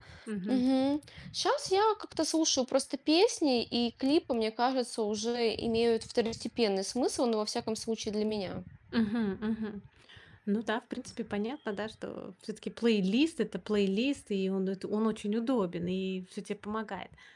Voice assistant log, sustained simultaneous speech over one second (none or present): none